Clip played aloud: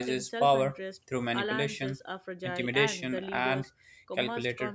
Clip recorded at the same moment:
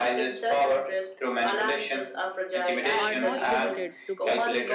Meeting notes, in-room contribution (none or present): present